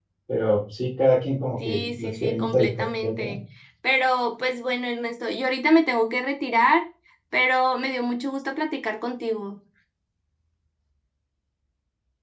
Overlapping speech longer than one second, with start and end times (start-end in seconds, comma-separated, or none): 1.6-3.3